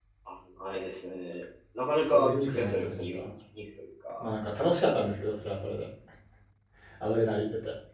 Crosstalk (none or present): present